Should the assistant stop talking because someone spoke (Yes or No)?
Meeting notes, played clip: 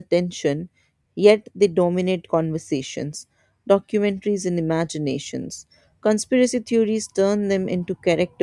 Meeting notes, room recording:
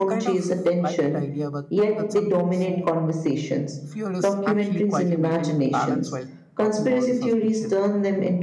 Yes